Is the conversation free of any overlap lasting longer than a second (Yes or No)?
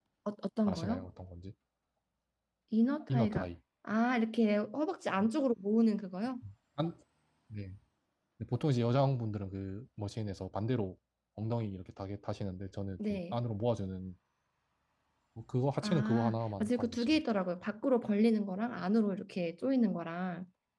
No